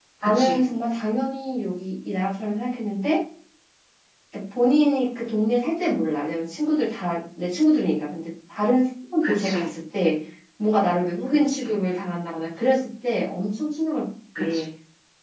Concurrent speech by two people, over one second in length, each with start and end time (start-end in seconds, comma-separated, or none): none